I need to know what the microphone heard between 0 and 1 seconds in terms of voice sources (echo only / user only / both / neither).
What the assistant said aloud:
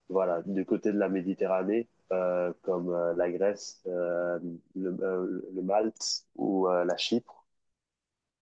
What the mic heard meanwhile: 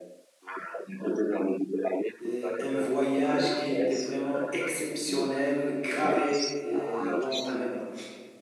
echo only